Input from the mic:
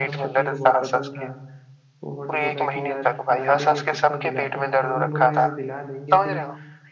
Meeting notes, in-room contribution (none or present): present